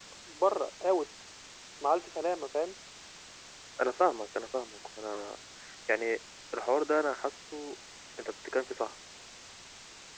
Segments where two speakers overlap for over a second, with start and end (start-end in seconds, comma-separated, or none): none